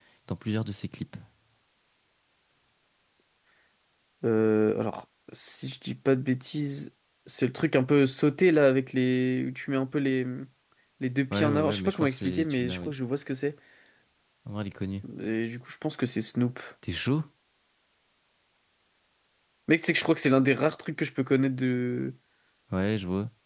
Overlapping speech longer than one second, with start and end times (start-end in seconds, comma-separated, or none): 11.3-12.9